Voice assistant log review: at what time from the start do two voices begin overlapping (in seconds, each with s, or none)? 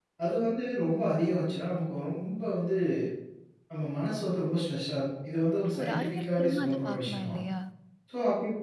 5.7 s